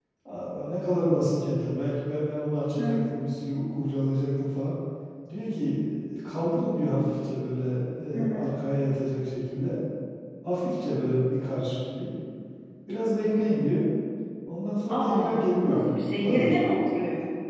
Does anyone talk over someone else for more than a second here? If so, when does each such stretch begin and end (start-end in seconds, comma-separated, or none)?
14.9-16.6